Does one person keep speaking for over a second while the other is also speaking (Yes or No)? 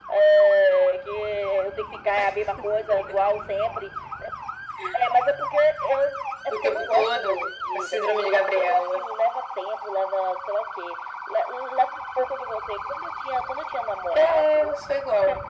Yes